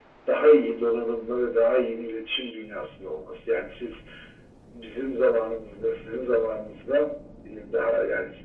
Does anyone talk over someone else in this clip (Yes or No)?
No